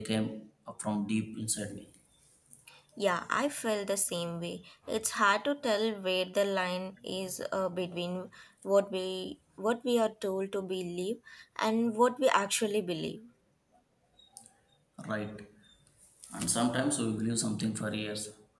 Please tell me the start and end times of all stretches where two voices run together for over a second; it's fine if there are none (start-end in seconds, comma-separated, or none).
none